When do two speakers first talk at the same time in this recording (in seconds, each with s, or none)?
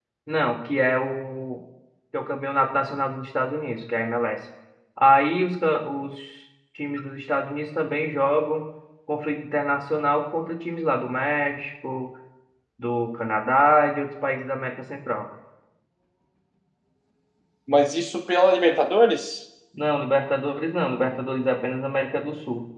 none